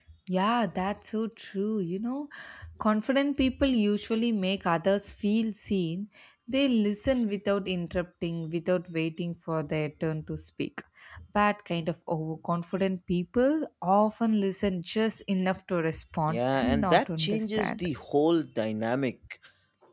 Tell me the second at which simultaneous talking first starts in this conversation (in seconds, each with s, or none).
16.3 s